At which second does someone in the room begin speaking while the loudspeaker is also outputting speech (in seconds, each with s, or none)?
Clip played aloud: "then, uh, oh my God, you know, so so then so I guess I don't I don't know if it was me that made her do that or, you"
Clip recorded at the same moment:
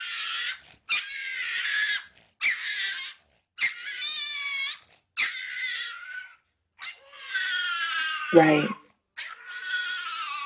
8.3 s